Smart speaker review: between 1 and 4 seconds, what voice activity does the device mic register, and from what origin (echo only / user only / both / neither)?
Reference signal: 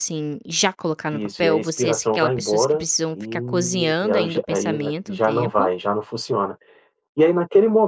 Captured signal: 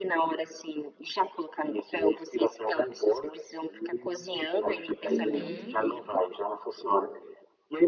echo only